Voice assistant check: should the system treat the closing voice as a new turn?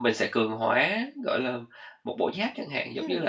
Yes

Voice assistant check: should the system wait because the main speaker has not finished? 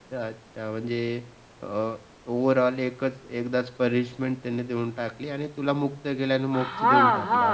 No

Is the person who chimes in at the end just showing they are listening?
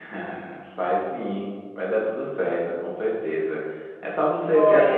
No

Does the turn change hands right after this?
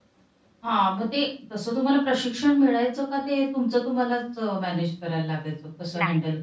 Yes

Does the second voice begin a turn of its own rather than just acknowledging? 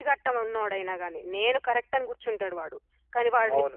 Yes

